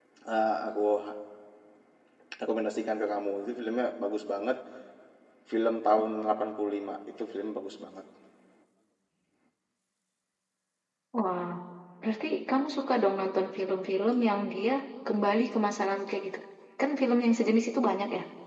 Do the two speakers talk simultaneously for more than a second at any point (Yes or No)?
No